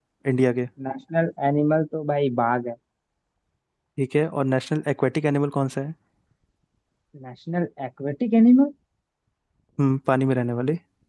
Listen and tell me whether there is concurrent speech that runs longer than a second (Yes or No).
No